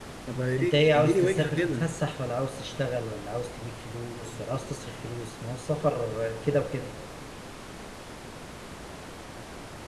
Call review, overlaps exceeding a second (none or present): present